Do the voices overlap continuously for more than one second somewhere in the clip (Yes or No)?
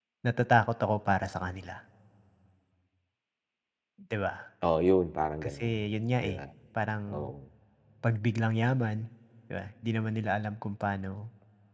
No